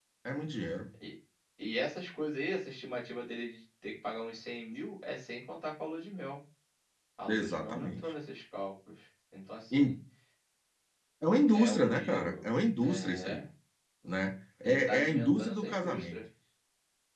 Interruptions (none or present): present